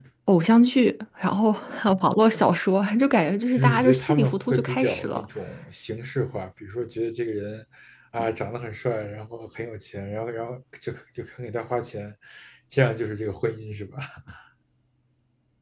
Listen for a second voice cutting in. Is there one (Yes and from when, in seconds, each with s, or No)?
Yes, from 3.5 s